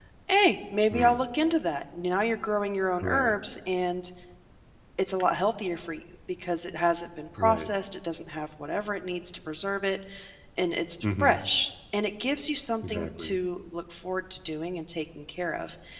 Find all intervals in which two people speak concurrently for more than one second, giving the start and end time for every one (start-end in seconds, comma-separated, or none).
none